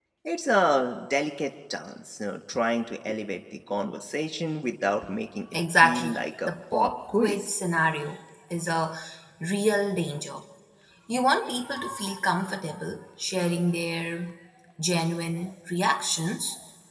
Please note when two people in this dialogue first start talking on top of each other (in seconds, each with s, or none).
5.5 s